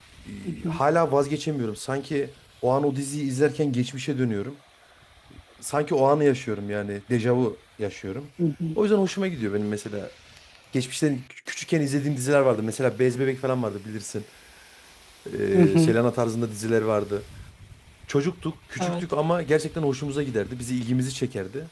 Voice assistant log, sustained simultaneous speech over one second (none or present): none